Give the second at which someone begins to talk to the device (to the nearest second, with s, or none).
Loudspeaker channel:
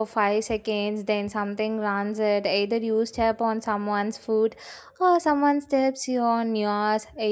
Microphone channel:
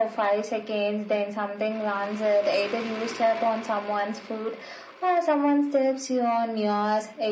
none